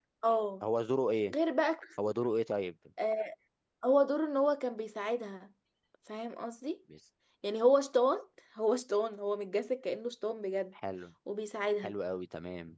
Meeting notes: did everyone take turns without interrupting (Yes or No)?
Yes